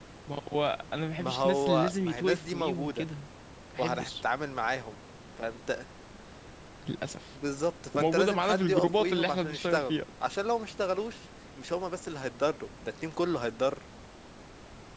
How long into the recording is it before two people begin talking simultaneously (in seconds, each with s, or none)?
1.2 s